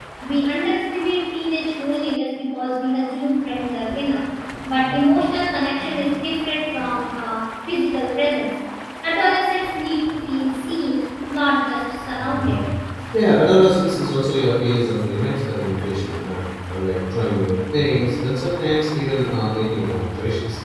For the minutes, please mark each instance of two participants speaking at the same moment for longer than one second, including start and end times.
none

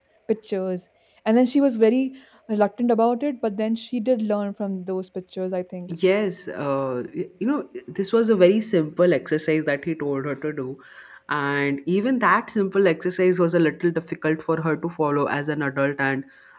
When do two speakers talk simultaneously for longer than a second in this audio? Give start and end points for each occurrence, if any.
none

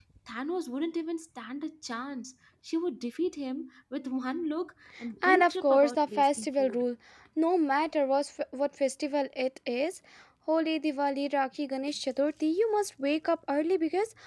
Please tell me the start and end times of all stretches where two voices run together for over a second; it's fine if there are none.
5.2-6.8

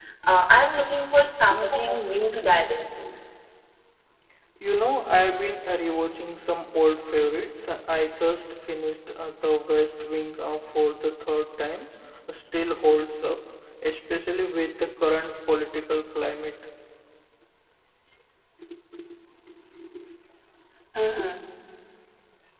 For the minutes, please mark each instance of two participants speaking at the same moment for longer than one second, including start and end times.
none

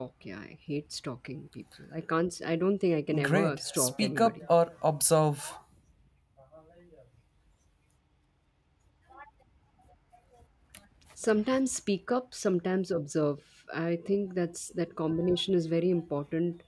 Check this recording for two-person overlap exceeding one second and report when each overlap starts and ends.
3.2-4.5

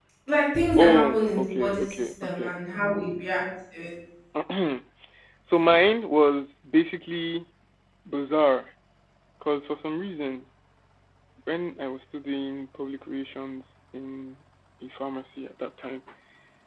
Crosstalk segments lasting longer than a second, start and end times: 0.8-2.5

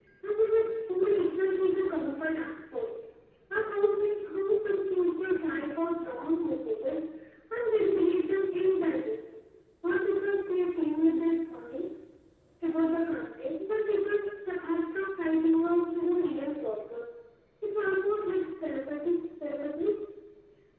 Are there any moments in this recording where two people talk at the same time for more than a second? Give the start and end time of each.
none

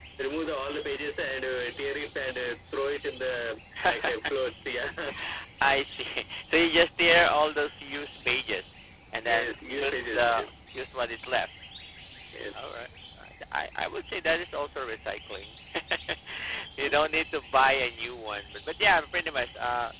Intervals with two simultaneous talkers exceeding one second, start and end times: 9.3-10.5

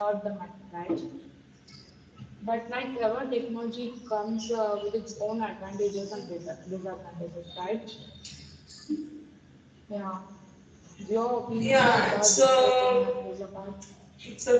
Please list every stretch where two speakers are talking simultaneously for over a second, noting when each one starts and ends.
11.6-13.0

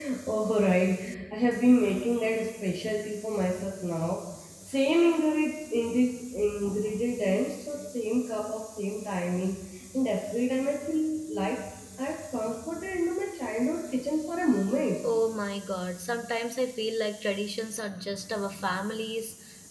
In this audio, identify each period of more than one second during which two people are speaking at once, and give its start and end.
none

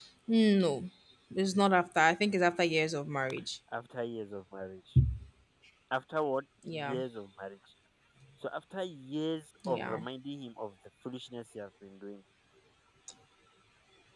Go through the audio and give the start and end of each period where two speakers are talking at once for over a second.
none

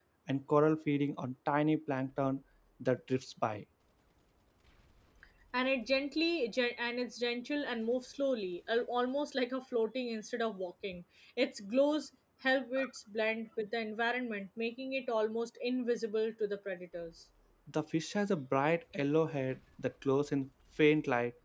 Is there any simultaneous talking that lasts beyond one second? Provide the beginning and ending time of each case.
none

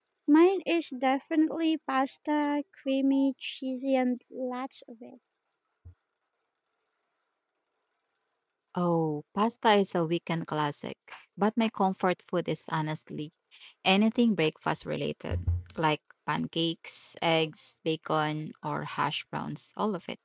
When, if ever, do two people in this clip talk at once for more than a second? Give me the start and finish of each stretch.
none

